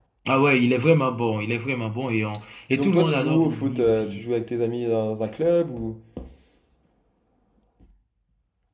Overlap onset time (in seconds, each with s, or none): 2.7 s